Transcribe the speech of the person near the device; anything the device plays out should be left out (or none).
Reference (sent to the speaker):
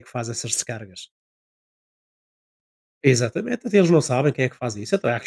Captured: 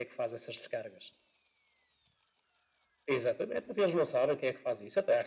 none